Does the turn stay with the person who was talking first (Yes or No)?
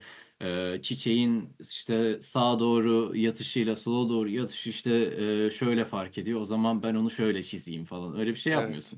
Yes